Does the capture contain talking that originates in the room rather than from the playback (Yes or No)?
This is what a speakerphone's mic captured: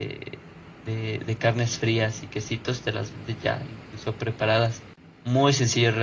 Yes